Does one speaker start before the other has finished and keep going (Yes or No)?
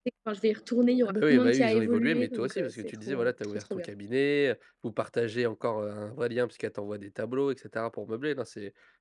Yes